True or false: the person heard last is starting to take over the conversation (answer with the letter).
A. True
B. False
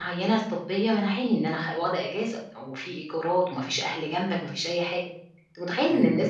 B